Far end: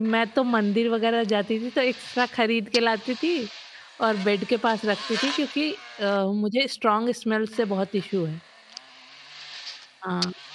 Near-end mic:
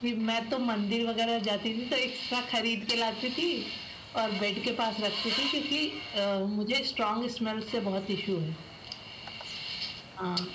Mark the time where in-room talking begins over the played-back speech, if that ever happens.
none

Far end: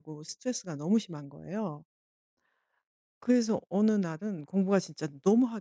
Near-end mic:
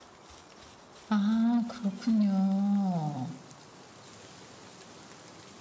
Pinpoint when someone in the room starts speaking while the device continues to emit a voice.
1 s

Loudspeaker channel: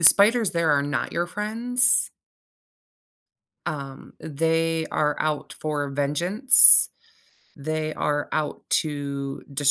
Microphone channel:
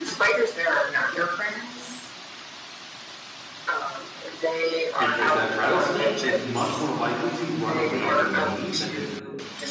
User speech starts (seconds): 5 s

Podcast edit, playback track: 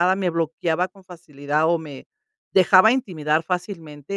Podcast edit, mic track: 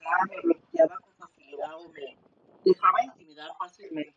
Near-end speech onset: none

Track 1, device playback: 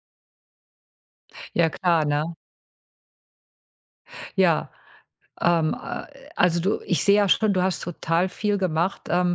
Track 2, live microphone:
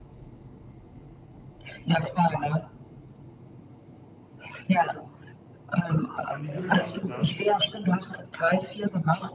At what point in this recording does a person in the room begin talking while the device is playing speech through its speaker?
6 s

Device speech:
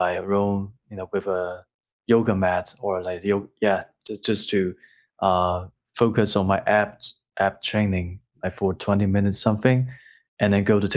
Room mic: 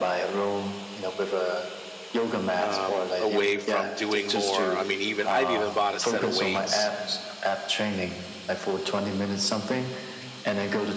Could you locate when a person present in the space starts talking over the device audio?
3 s

